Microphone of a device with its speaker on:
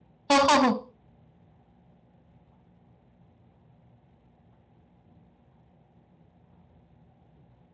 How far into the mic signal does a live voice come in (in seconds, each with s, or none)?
0.3 s